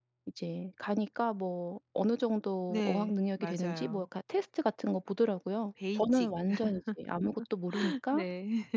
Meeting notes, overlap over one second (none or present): present